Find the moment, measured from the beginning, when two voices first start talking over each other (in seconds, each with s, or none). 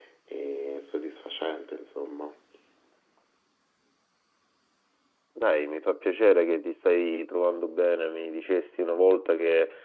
none